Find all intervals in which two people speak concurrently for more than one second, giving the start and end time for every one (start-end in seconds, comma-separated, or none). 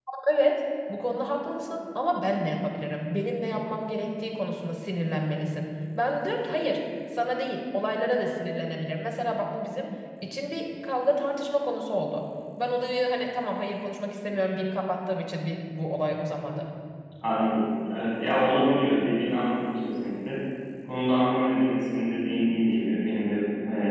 none